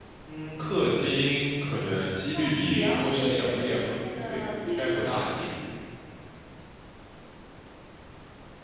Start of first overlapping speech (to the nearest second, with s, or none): 2 s